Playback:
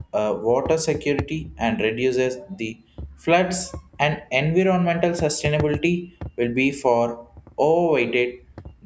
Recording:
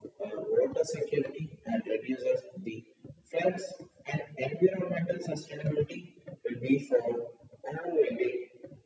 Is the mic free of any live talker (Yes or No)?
Yes